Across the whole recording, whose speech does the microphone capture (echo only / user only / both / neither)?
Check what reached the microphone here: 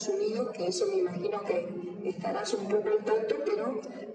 echo only